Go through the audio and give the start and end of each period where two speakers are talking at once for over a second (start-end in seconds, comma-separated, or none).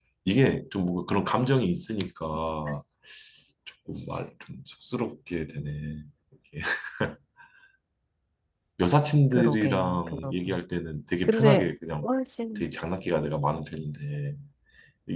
9.3-10.6